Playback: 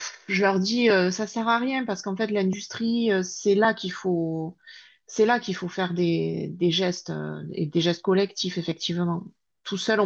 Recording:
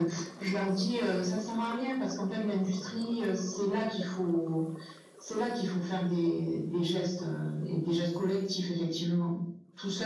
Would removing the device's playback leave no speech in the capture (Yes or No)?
Yes